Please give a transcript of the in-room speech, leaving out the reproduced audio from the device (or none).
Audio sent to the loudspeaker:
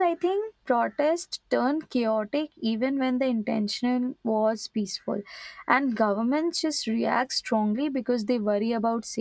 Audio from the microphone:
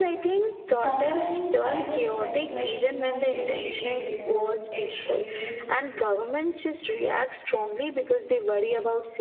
Sometimes I just think like humor is tricky because it relies